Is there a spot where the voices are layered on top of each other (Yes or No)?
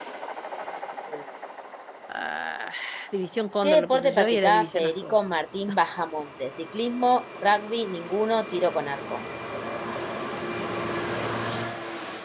Yes